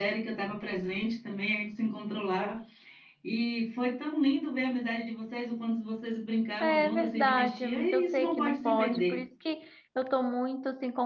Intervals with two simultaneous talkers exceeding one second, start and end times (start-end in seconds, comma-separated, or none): 6.6-9.2